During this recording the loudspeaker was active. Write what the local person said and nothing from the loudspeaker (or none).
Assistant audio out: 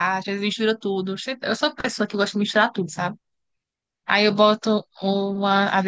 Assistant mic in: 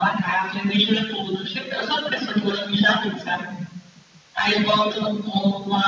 none